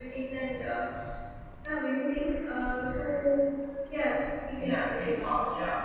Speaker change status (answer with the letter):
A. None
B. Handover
B